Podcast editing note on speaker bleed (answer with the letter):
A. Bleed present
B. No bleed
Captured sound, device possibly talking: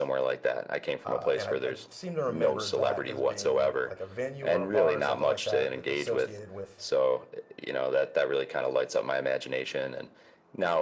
A